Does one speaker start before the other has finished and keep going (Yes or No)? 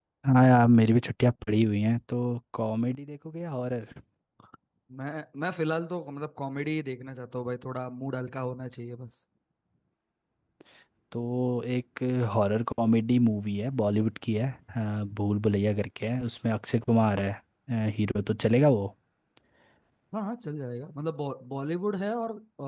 No